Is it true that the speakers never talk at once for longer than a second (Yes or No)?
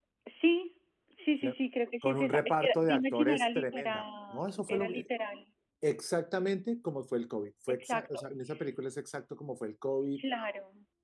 No